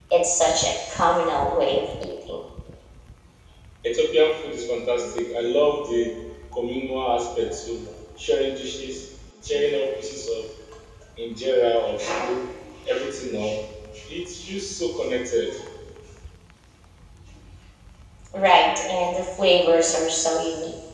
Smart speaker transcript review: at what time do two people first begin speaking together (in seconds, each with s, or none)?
none